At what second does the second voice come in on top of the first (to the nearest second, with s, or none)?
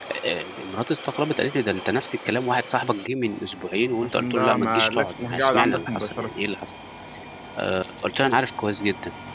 4 s